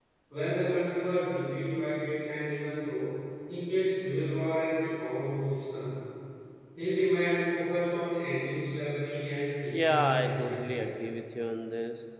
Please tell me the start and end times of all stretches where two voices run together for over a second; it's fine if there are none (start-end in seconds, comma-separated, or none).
9.7-10.9